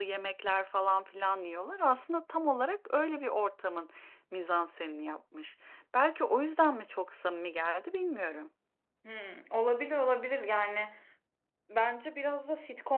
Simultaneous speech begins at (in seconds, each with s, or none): none